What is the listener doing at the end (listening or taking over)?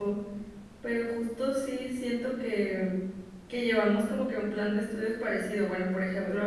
listening